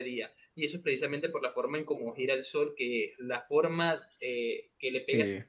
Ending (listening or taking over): listening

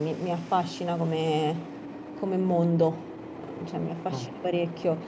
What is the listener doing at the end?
listening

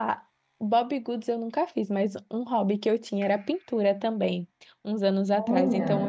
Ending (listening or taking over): listening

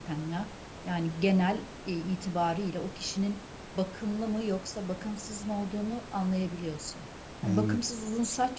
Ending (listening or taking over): listening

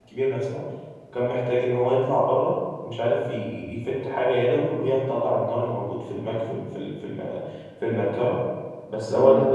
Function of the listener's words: listening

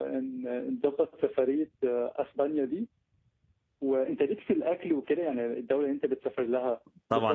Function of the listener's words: taking over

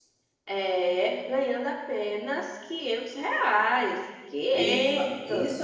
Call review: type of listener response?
taking over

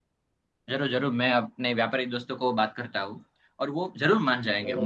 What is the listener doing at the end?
listening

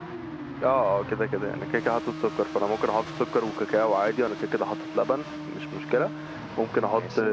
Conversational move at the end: listening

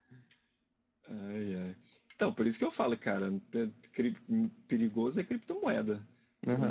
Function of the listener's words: taking over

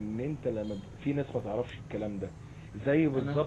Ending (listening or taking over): listening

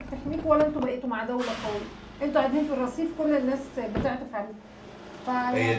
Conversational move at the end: taking over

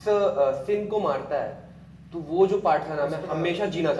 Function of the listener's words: listening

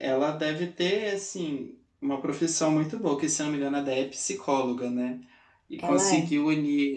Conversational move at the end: listening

